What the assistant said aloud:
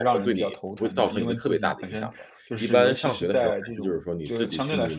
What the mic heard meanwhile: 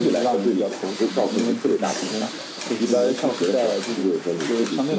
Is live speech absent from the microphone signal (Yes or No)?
Yes